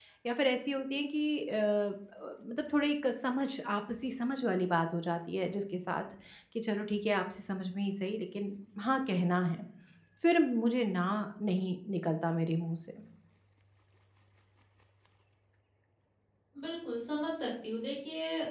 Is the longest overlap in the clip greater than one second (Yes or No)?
No